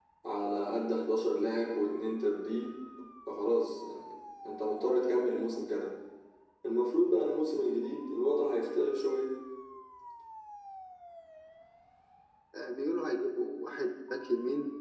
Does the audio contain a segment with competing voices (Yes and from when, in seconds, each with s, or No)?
No